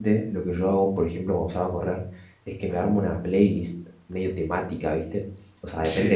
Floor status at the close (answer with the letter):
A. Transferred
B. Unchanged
B